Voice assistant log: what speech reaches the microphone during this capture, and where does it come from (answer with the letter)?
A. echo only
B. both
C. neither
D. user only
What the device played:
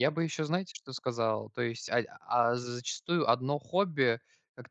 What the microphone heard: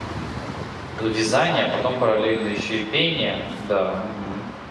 D